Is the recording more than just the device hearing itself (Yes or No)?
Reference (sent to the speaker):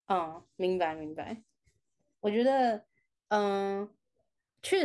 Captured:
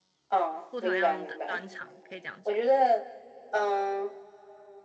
Yes